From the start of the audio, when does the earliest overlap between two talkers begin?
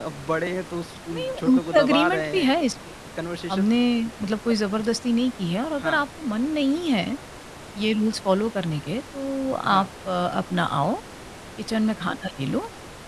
1 s

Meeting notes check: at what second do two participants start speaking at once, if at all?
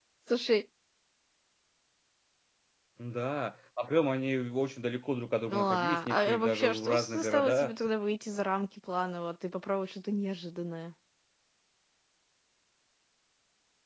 6 s

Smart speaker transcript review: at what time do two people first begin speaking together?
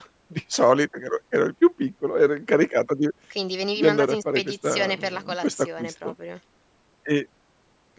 4 s

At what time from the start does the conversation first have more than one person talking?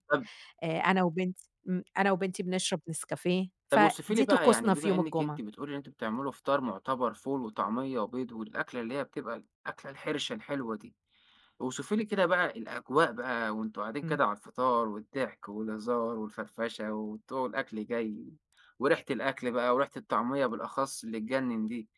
4 s

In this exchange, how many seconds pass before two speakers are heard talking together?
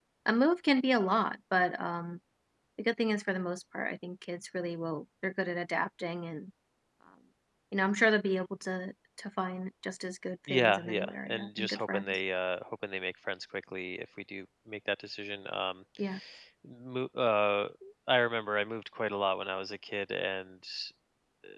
10 s

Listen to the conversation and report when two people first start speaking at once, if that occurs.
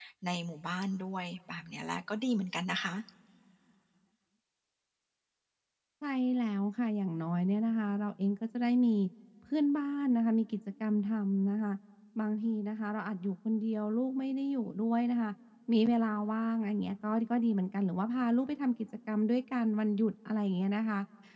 none

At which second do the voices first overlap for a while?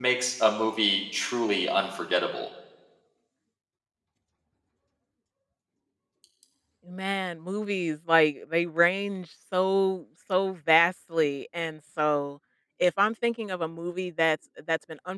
none

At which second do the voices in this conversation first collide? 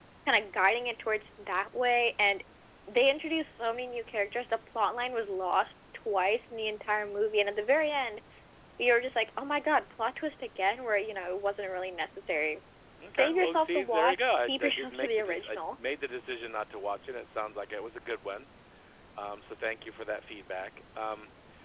13 s

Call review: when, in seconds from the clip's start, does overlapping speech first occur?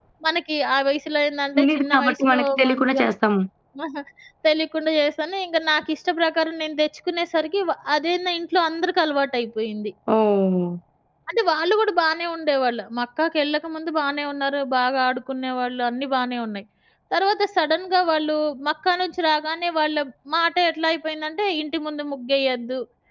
2 s

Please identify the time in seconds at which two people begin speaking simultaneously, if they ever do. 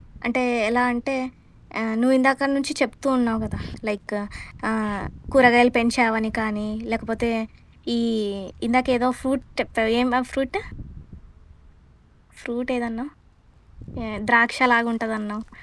none

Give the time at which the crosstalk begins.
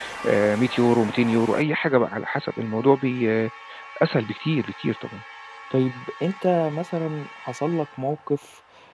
none

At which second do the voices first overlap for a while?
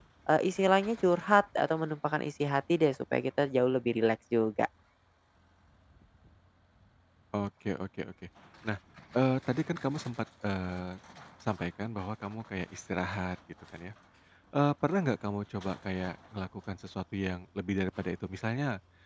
none

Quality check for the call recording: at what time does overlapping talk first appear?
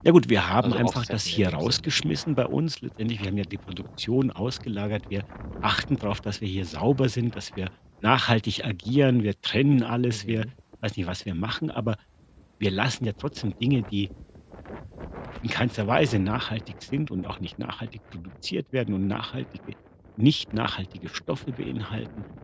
1 s

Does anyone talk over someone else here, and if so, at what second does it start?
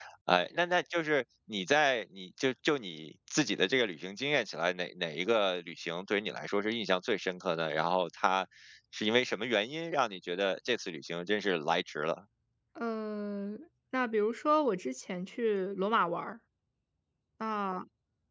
none

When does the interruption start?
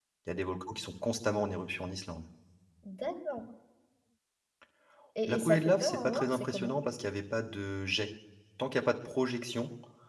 5 s

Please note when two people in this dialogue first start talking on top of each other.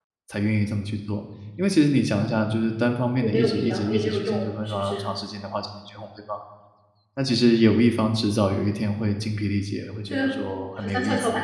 3 s

